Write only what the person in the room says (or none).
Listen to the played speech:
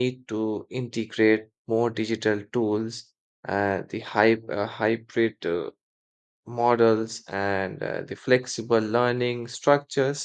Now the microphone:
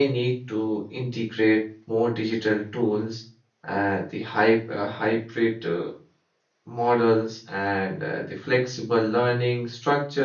none